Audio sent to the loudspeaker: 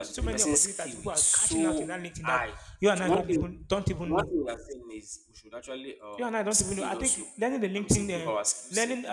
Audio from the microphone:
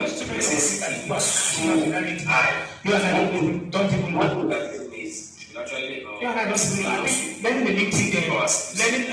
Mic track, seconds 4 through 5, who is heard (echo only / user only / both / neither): echo only